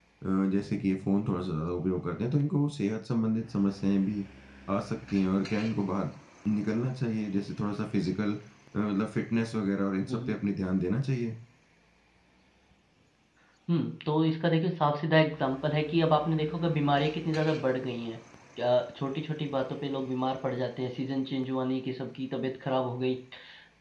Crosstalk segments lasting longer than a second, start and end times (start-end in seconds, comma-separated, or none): none